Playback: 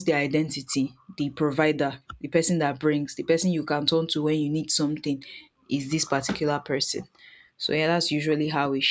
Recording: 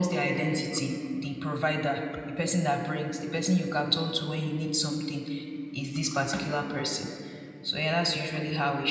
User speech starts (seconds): none

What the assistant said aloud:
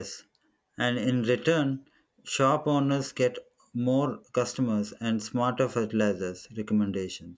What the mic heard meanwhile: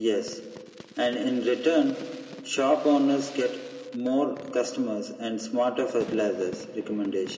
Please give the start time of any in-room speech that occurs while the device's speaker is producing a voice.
none

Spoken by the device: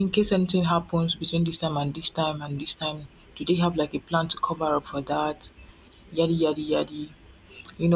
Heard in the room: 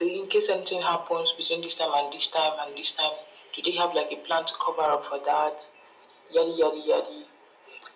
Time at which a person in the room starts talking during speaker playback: none

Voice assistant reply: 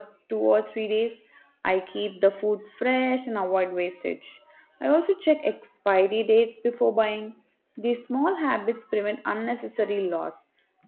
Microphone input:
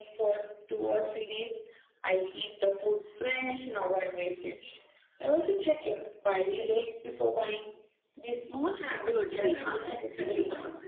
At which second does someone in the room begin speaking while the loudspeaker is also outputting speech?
8.7 s

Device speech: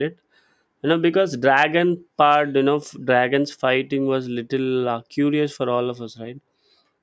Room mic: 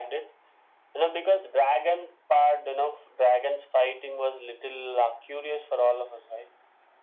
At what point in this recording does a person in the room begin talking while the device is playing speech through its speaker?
none

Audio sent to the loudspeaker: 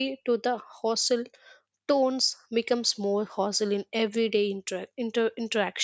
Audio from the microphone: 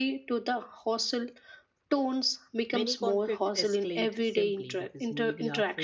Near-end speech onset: 2.7 s

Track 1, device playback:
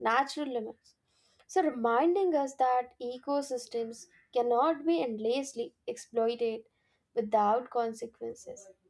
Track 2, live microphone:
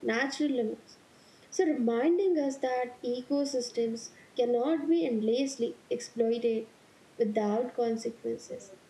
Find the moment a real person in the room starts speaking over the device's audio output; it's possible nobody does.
none

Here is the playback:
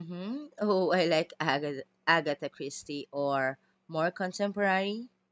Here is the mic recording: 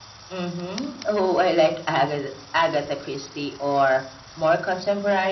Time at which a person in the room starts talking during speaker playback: none

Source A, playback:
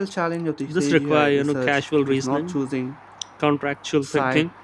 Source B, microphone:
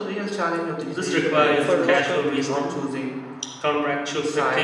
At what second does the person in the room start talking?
1.6 s

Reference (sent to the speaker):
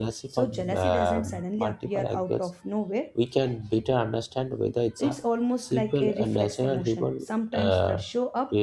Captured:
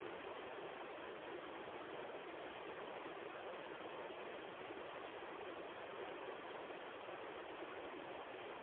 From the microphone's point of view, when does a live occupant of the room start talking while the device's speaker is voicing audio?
none

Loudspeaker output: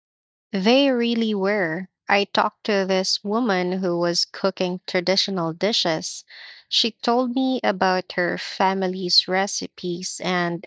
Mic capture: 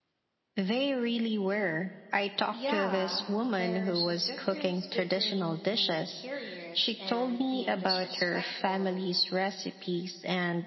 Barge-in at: 2.5 s

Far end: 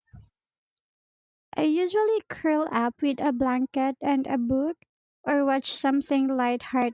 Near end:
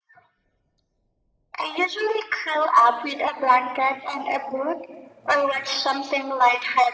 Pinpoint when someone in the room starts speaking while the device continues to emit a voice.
none

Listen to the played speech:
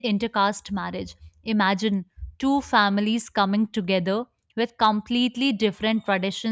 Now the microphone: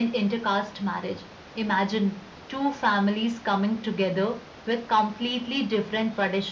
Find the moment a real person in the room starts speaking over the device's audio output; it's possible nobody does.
none

